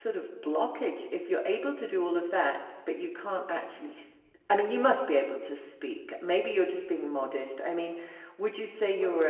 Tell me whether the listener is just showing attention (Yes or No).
Yes